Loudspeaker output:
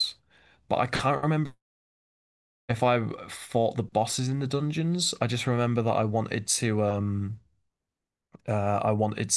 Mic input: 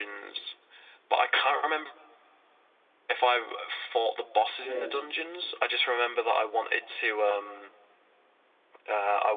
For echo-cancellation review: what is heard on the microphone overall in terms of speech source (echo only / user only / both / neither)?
both